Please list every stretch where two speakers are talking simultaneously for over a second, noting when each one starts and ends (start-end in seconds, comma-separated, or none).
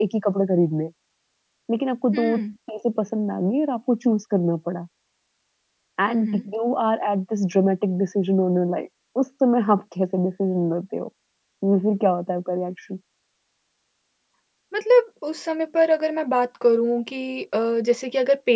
none